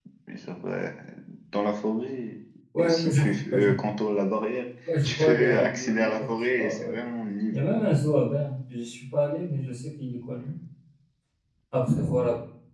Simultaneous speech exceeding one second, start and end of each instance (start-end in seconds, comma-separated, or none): 5.0-7.0